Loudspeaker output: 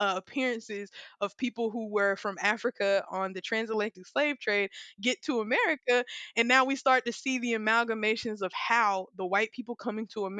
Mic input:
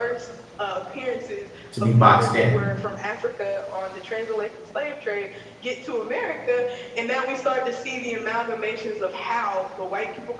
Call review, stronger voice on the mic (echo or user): user